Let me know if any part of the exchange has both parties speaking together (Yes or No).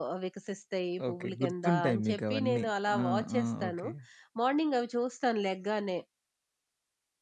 Yes